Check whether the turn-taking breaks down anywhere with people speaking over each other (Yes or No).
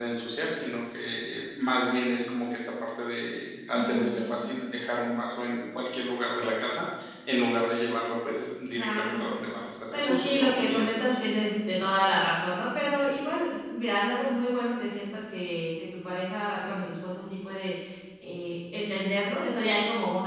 Yes